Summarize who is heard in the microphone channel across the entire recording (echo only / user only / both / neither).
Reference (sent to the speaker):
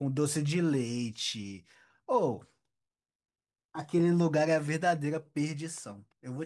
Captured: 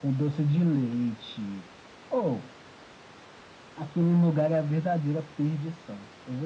echo only